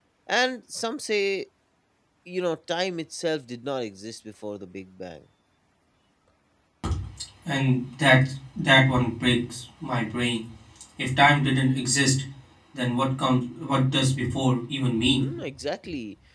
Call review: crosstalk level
none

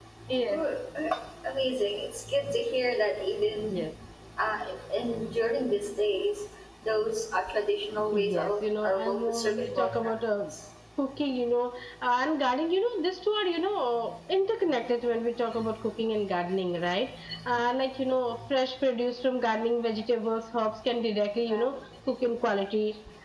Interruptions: present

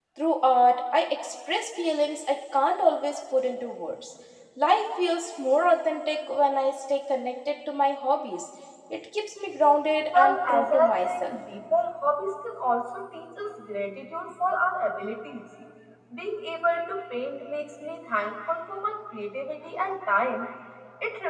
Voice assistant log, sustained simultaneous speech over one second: present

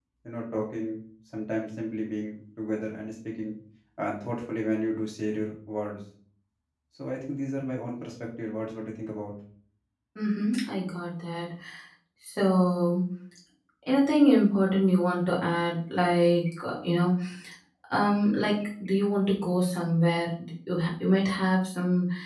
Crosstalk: none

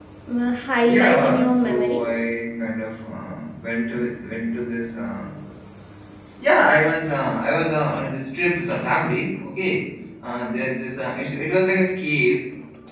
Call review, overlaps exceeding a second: present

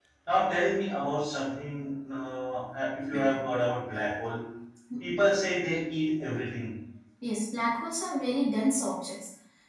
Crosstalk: none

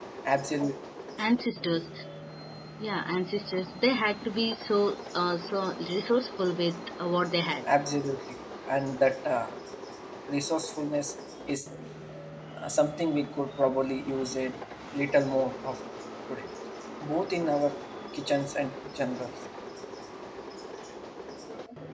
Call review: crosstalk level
none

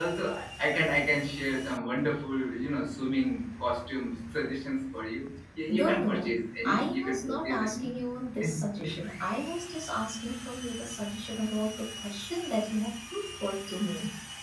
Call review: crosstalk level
present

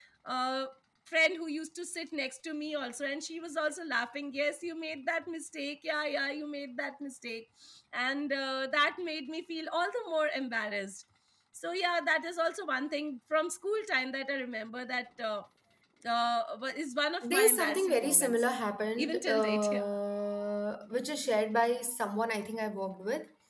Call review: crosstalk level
present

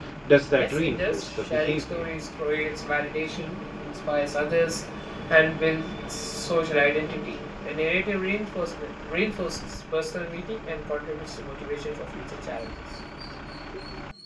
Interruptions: present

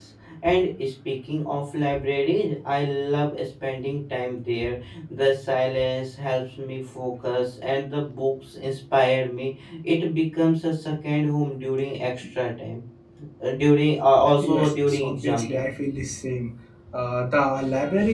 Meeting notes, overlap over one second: present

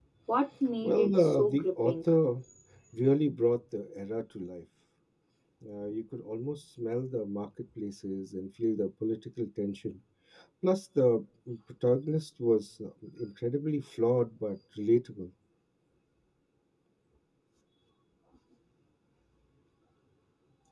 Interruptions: present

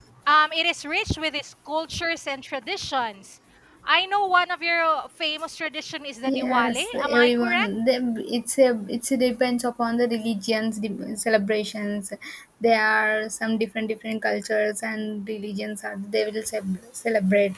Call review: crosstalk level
present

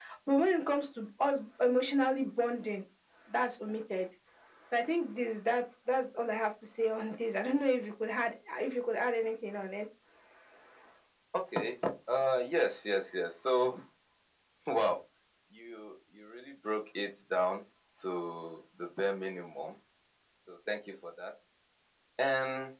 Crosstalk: none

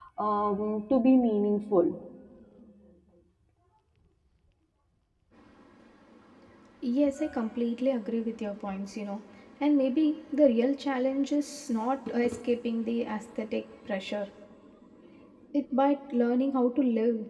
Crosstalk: none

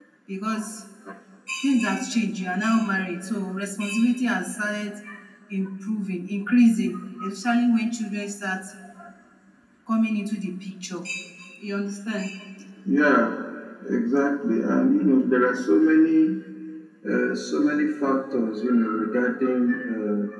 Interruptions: none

